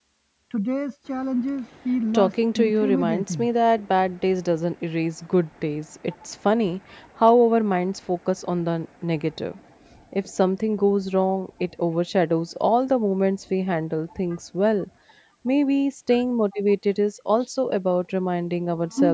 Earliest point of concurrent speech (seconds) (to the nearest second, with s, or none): 2 s